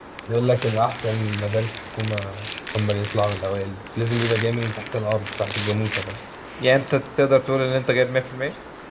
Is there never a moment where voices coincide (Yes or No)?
Yes